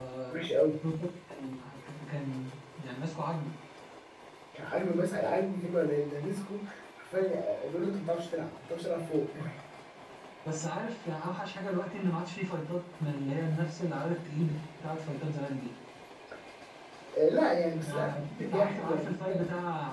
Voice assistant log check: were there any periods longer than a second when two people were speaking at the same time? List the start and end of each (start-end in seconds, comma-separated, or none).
17.8-19.4